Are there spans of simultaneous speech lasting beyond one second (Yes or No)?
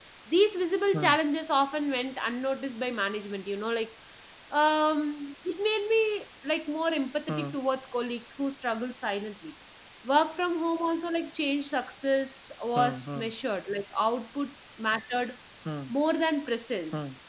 No